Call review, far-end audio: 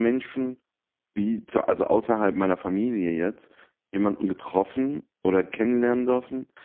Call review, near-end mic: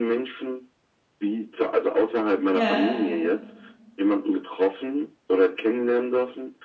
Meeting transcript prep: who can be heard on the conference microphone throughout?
both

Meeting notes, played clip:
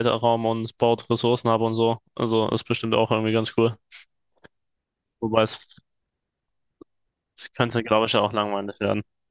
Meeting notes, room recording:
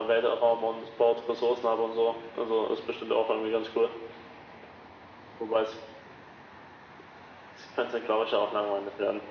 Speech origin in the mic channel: echo only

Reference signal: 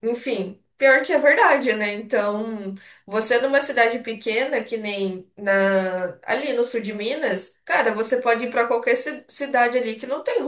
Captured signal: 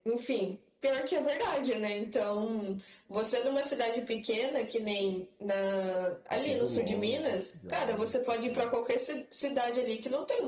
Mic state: both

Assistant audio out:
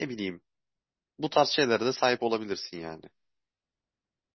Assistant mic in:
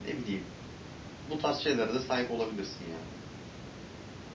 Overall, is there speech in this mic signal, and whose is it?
echo only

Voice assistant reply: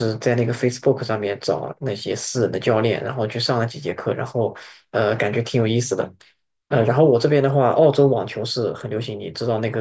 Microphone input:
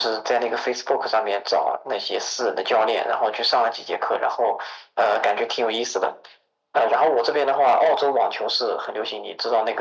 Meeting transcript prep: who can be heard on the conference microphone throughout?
echo only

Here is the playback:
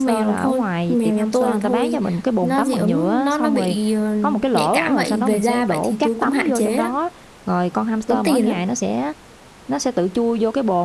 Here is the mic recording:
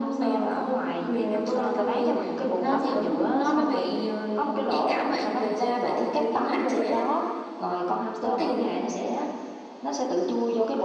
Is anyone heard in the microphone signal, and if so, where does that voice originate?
echo only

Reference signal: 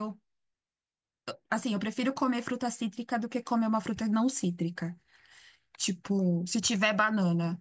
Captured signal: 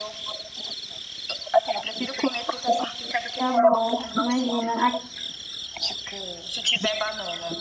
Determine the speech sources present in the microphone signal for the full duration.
both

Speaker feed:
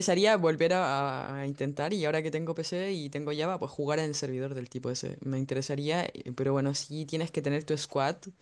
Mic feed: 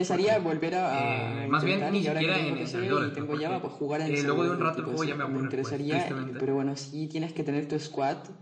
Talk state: both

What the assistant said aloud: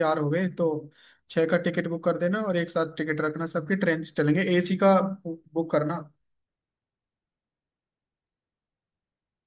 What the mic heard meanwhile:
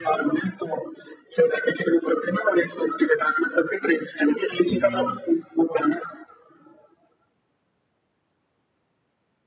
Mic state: both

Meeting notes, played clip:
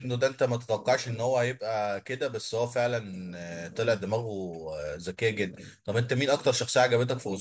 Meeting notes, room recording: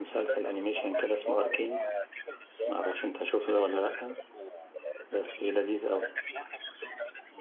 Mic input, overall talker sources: both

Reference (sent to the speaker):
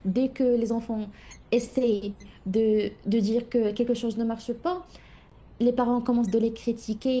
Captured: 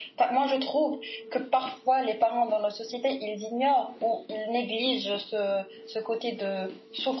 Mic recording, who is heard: user only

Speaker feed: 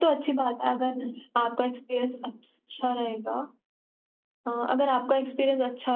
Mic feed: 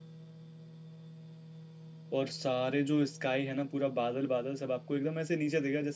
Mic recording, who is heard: user only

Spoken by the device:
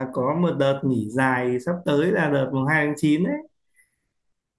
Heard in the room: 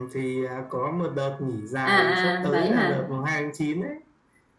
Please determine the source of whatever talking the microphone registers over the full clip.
both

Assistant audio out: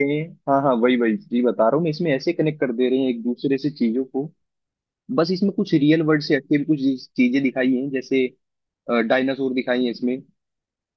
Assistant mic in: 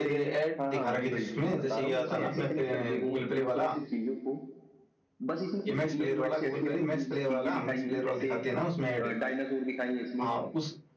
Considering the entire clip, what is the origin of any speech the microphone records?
both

